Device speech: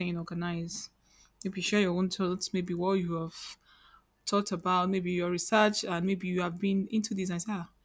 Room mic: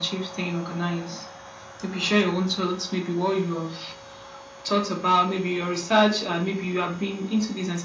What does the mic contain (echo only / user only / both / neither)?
echo only